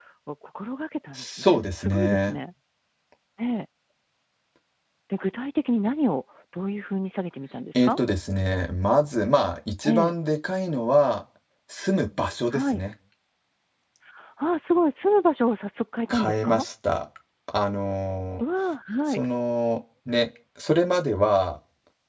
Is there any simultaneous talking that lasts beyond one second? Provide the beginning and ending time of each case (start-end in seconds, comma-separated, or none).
1.2-2.4